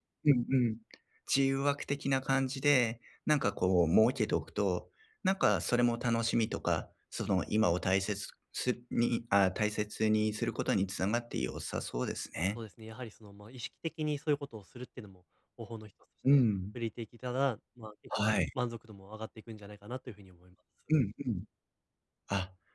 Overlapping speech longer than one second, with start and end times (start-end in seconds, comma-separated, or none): none